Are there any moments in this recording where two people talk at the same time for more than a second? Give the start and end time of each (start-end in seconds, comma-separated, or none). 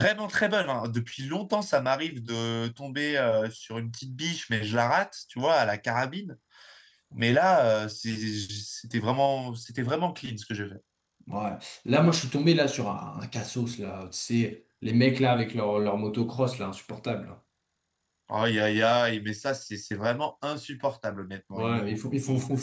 none